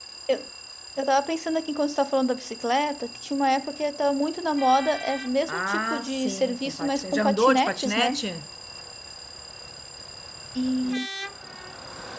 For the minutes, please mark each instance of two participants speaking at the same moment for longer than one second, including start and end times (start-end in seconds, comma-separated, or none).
5.5-8.2